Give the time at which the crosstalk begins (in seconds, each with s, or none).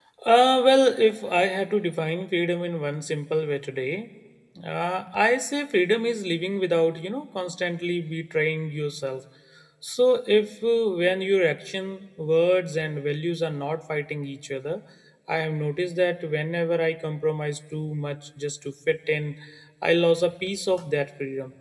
none